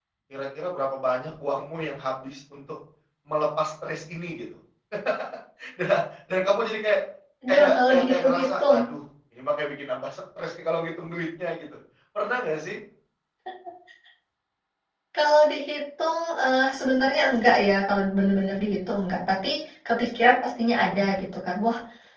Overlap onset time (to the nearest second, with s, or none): 7 s